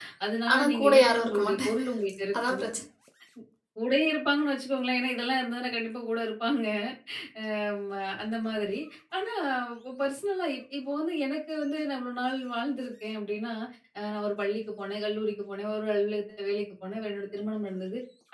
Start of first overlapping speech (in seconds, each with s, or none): 0.5 s